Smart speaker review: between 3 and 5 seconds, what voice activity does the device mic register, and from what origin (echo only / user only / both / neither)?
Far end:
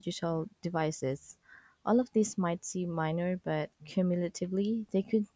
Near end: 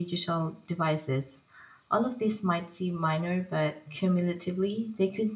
echo only